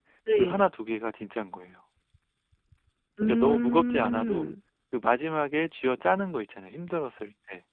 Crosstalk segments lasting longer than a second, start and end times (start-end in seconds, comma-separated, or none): 3.3-4.5